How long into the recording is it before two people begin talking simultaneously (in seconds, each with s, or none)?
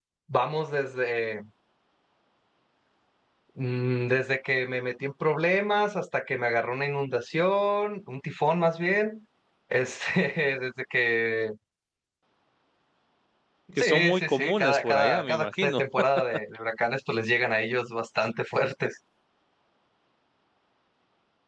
13.8 s